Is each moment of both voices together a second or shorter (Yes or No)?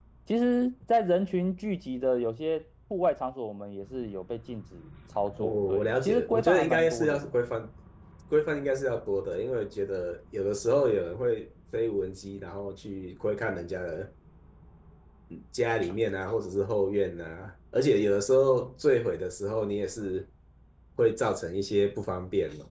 No